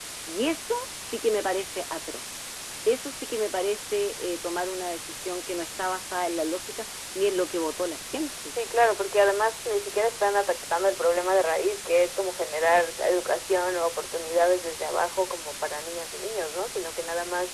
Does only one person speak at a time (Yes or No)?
Yes